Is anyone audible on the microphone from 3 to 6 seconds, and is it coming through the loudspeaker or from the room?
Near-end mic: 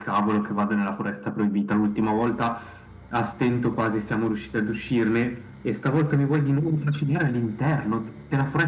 echo only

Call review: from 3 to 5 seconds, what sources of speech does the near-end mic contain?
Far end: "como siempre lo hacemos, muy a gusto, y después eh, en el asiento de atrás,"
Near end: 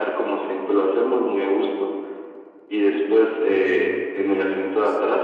both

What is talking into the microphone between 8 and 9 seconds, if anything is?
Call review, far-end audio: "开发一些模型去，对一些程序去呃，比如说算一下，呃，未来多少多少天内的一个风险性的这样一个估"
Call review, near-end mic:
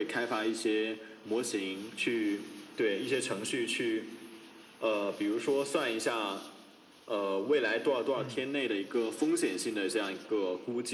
both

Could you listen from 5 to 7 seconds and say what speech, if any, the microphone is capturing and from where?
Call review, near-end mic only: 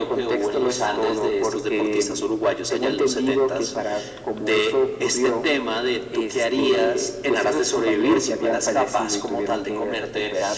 echo only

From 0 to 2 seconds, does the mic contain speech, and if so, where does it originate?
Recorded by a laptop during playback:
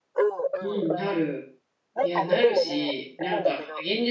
both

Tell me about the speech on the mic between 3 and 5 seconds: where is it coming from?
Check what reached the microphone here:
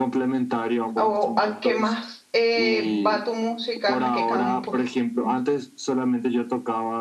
both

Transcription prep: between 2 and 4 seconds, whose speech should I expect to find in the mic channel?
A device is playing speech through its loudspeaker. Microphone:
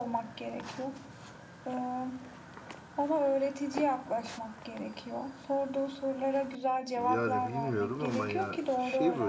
echo only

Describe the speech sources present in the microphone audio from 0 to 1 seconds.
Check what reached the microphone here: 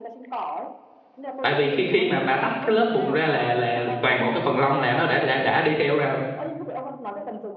echo only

